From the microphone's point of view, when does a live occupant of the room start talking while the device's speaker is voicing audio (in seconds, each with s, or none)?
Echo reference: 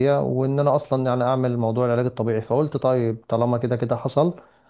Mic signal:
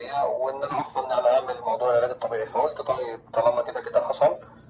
none